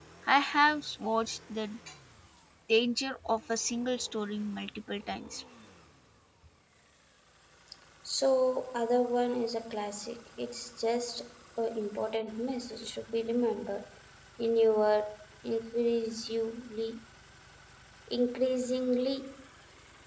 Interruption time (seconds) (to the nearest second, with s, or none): none